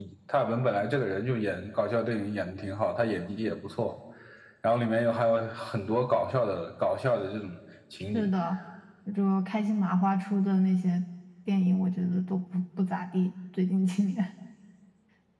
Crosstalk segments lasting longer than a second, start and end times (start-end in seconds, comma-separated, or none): none